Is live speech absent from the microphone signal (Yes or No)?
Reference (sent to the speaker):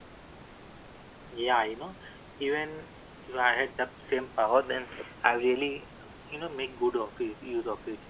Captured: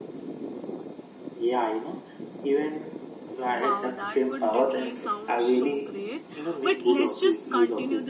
No